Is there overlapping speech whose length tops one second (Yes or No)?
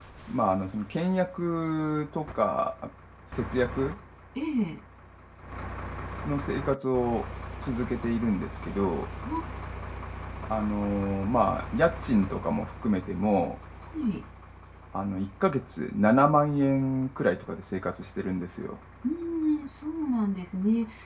No